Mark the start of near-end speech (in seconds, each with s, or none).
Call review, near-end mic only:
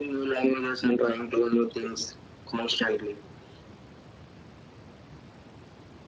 none